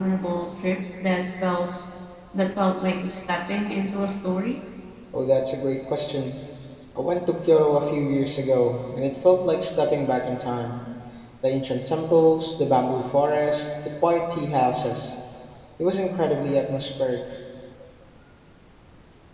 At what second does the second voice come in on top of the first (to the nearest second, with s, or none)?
none